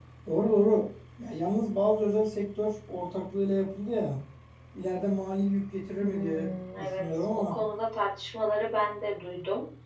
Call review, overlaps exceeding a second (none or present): present